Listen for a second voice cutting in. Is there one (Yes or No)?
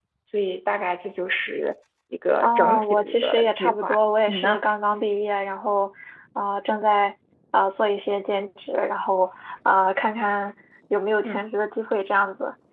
Yes